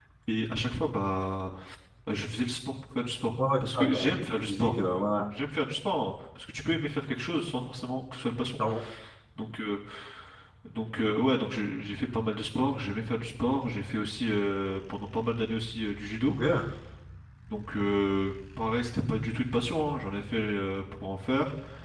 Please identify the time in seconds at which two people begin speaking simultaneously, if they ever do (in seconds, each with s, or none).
3.4 s